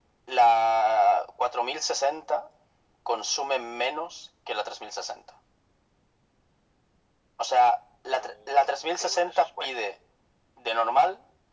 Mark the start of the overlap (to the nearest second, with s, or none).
8 s